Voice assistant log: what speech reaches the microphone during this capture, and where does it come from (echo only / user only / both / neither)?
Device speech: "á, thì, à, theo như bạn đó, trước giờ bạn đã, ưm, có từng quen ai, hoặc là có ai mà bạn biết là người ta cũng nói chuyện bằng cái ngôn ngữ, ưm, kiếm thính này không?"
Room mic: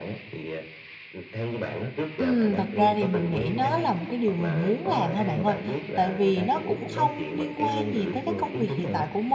both